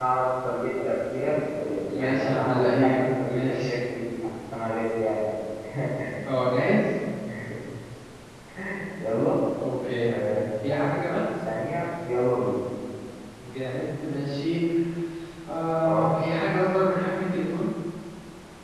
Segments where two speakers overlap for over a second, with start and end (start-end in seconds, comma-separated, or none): 1.9-3.8